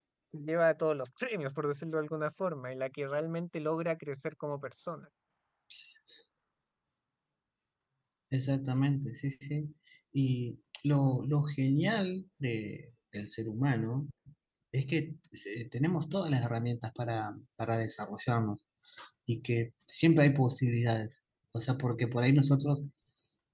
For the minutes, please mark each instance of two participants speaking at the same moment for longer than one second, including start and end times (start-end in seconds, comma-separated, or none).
none